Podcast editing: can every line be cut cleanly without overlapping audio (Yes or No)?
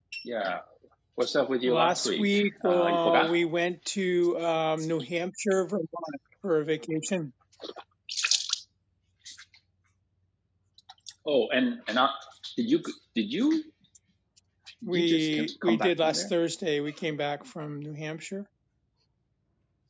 No